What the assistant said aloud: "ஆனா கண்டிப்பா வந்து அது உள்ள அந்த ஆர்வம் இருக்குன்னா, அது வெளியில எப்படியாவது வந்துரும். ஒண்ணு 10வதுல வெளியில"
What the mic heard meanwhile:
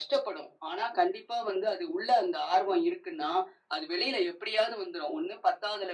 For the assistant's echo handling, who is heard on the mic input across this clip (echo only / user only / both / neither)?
echo only